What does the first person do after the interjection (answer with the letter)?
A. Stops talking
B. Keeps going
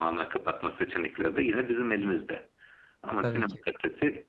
B